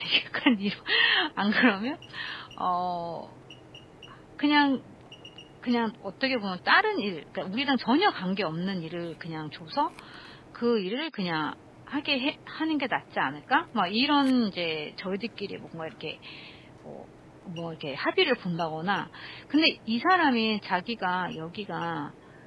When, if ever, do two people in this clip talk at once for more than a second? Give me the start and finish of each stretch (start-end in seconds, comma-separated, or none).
none